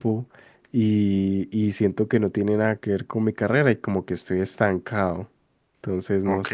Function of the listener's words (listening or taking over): taking over